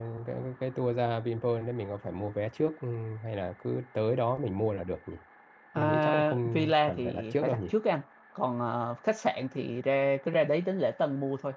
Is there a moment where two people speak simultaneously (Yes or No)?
Yes